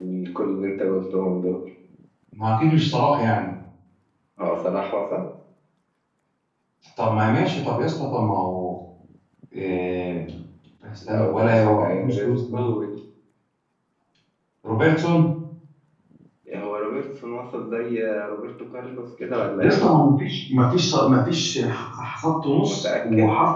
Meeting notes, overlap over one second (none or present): present